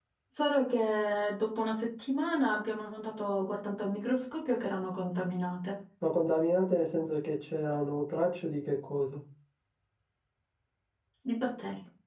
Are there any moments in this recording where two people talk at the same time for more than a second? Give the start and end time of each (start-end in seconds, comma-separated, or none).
none